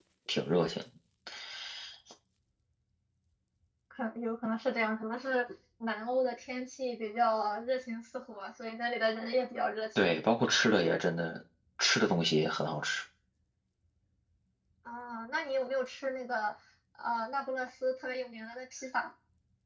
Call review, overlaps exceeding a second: none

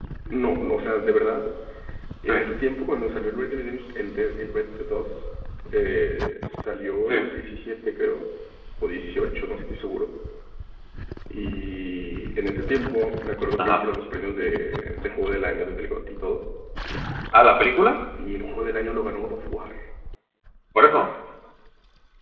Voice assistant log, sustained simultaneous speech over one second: none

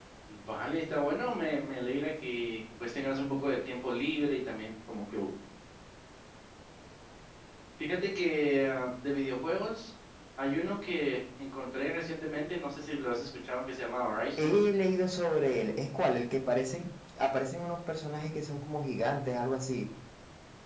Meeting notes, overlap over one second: none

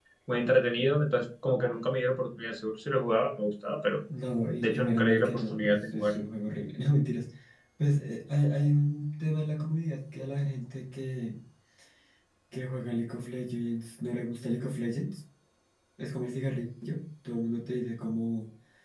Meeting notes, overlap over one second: present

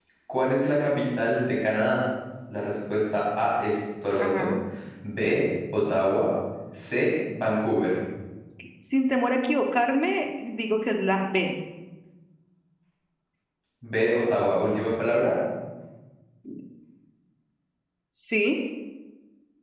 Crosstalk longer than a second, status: none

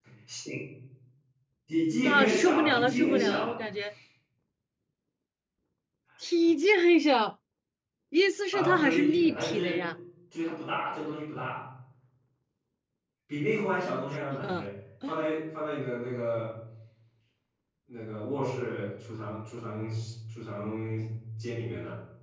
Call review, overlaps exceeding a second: present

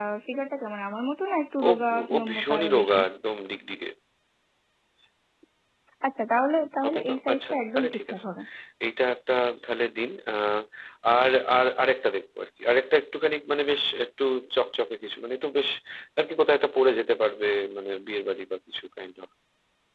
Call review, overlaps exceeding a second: present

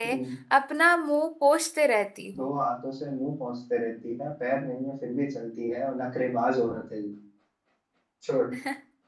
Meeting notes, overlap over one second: none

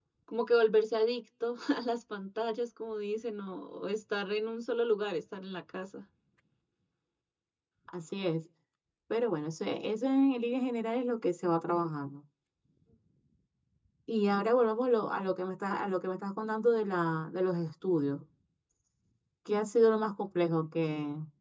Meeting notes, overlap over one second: none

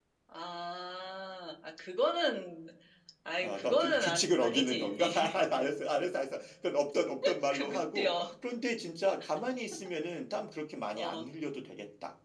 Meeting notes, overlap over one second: present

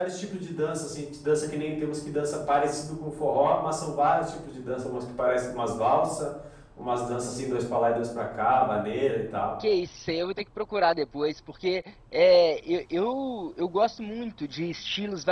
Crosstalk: none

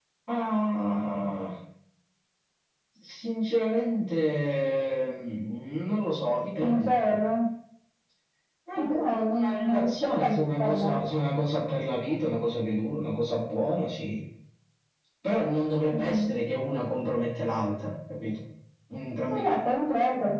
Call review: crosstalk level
present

